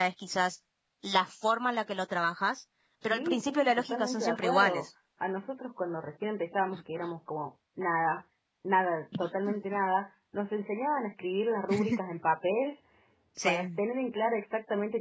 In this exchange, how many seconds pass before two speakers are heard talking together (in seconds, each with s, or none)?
3.0 s